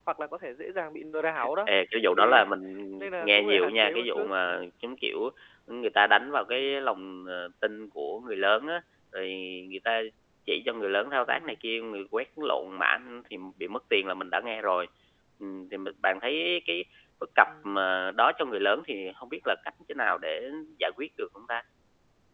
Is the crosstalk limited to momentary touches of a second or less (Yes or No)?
No